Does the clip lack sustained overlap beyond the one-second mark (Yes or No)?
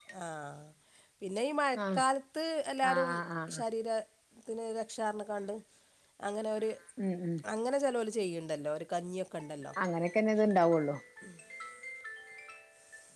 Yes